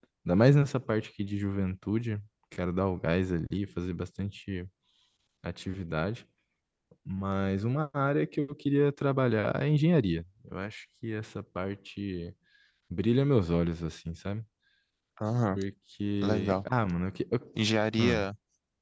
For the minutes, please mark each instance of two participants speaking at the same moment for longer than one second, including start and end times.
none

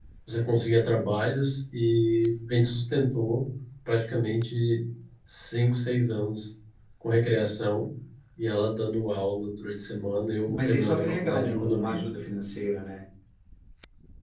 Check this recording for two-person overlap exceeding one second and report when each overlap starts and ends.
10.5-12.0

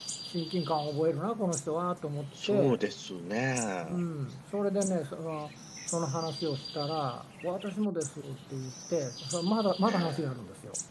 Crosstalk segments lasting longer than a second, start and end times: none

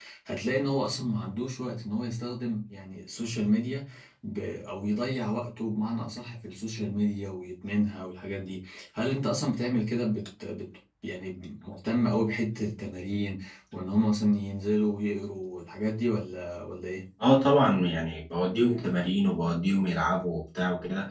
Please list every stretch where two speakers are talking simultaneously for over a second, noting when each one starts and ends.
none

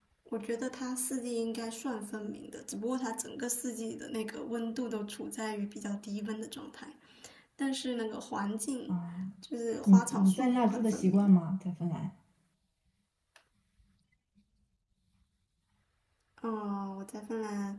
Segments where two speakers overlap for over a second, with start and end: 9.9-11.3

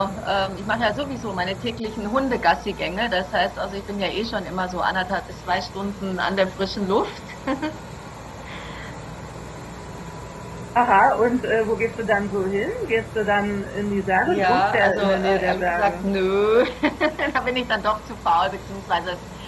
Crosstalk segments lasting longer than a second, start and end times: 14.3-16.0

